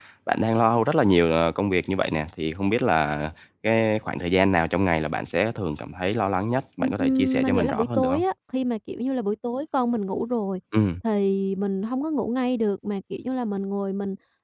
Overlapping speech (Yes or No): Yes